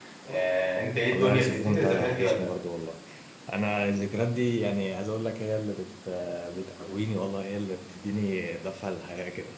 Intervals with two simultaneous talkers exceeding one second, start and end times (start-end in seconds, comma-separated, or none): 1.1-2.5